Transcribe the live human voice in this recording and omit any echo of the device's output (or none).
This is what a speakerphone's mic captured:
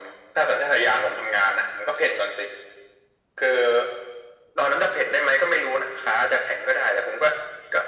none